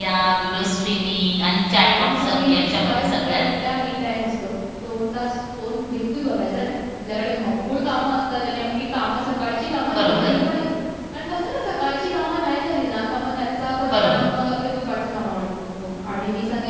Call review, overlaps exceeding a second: present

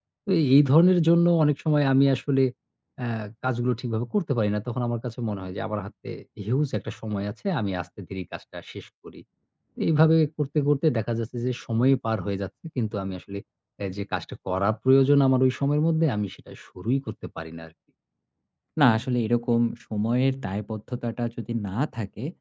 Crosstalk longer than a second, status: none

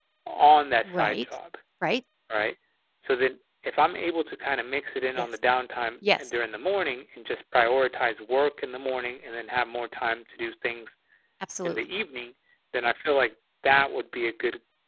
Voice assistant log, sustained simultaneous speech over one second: none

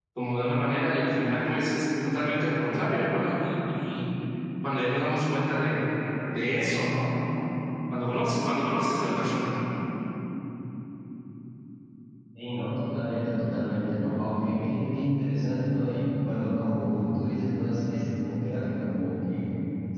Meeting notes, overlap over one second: none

